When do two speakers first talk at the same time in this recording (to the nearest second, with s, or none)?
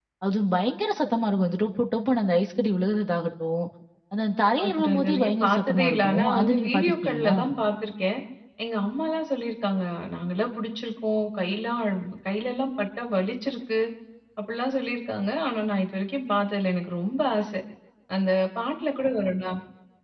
5 s